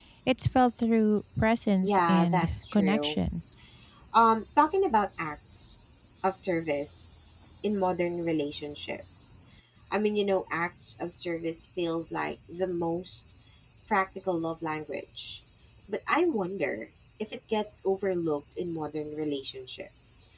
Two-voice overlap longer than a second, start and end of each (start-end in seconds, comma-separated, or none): 1.8-3.2